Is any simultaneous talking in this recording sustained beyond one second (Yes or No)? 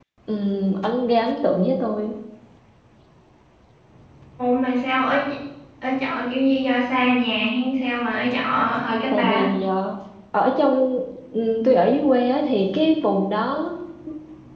No